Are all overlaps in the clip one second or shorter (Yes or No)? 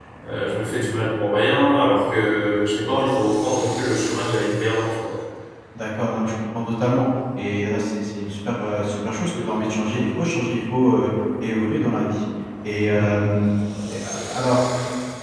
Yes